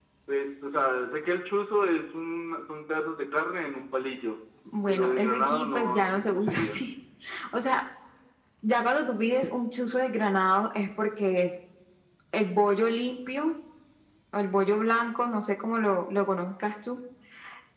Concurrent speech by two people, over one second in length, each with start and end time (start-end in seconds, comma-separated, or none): 4.9-6.8